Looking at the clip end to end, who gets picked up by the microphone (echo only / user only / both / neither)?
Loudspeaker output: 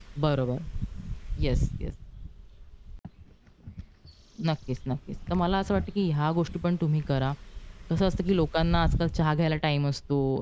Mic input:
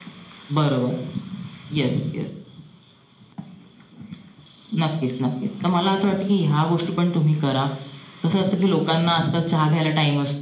echo only